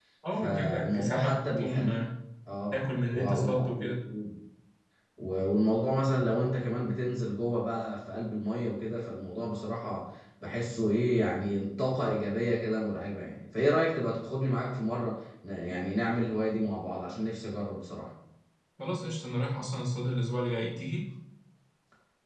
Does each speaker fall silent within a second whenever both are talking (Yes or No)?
No